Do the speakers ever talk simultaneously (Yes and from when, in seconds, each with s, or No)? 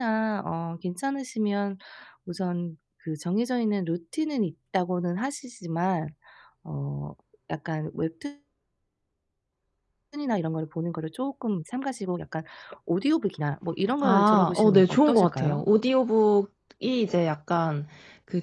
Yes, from 14.0 s